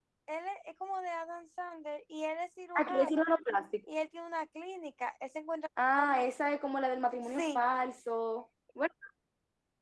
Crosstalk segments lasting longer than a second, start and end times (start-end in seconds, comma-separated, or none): none